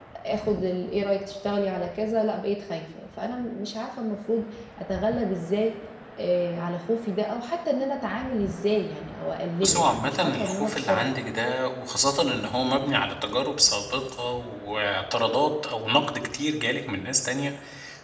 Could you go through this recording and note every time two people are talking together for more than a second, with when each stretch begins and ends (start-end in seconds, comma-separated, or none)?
9.6-11.1